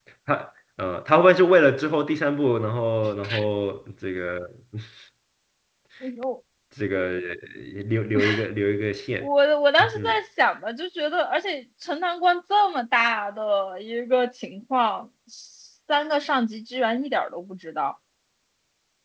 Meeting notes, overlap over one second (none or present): none